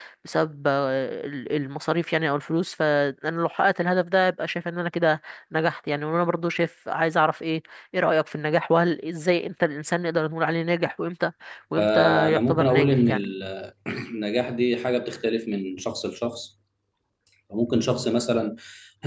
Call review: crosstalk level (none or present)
present